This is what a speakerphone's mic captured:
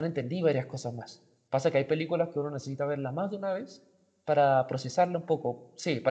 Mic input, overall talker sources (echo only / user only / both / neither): user only